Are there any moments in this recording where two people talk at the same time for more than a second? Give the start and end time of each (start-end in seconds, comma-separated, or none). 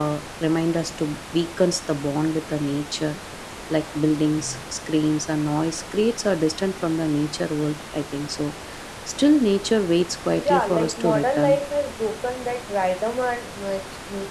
10.3-11.6